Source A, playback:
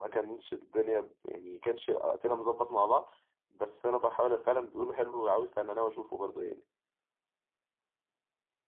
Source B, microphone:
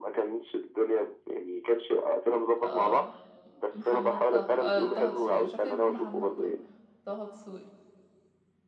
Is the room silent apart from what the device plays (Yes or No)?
No